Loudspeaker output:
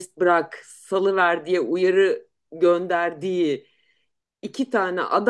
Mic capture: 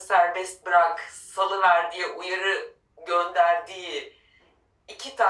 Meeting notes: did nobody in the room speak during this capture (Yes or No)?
Yes